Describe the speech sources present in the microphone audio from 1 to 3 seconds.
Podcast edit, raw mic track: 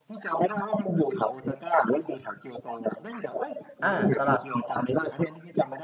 echo only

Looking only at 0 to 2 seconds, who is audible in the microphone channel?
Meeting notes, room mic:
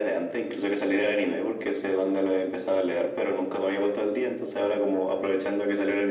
echo only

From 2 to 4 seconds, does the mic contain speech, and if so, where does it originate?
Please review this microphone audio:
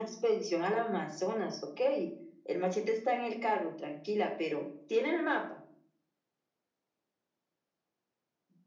echo only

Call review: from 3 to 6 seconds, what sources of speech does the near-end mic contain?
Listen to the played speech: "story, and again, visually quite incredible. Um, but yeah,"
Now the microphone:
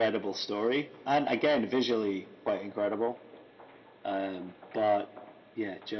echo only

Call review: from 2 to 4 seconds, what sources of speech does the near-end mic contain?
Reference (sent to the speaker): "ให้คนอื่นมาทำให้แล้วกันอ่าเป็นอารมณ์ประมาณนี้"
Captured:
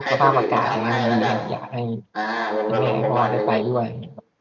both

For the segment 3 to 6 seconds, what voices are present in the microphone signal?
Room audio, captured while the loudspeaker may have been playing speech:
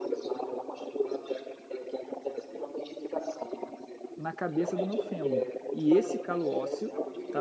both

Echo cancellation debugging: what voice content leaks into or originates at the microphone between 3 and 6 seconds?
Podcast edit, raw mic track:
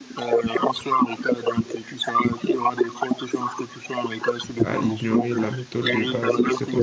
both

